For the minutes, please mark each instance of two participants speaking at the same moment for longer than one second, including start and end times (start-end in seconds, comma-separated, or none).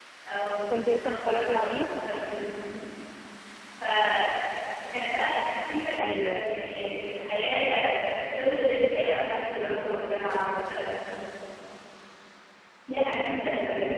0.7-1.9